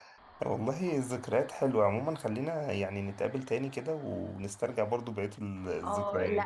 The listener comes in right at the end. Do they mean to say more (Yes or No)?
Yes